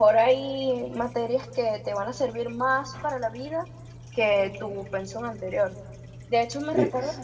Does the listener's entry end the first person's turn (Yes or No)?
No